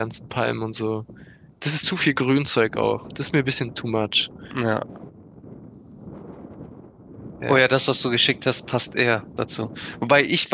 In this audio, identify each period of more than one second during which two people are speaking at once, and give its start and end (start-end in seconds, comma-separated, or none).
none